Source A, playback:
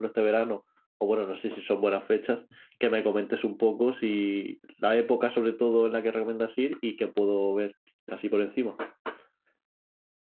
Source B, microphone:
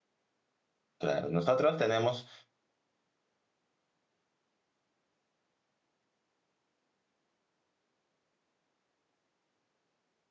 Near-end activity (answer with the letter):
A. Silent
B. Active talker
B